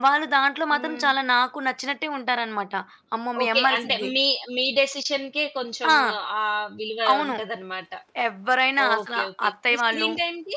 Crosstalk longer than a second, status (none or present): present